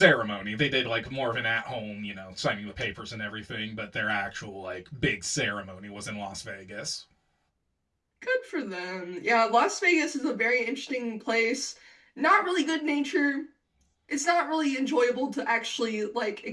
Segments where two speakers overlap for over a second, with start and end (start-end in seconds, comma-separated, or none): none